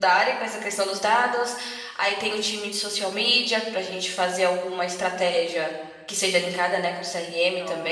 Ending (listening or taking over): taking over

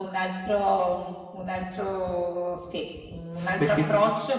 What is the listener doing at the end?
listening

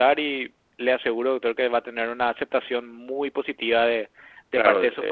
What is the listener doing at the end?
taking over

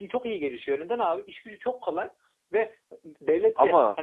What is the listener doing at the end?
listening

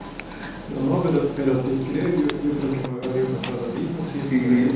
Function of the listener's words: listening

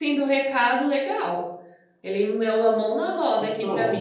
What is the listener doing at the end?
listening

